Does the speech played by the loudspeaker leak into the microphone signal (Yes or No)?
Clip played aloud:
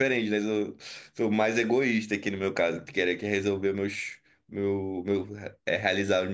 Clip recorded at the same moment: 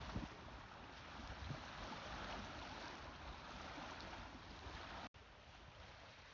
No